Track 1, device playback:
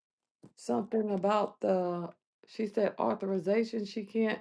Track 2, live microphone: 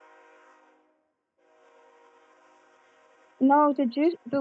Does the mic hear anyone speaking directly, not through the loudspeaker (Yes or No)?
Yes